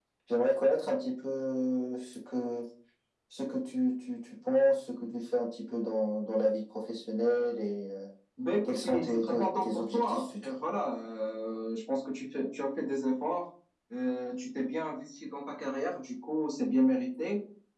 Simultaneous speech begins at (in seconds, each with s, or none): 8.7 s